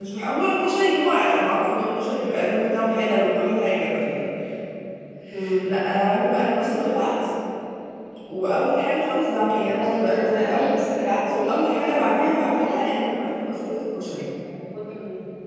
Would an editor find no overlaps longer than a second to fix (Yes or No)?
No